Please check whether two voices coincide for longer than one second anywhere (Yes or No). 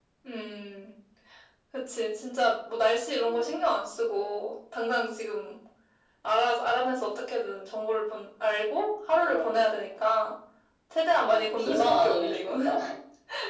Yes